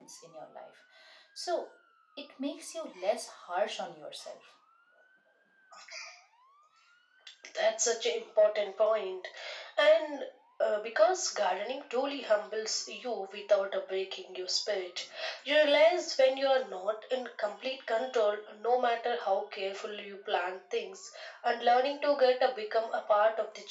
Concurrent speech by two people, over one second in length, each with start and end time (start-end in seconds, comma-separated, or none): none